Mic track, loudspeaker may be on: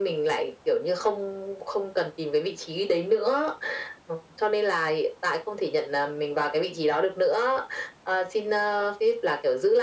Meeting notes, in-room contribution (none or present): none